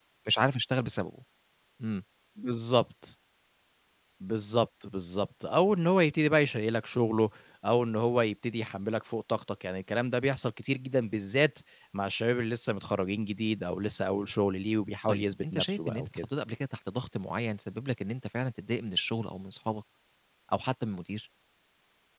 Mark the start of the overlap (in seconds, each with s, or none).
15.1 s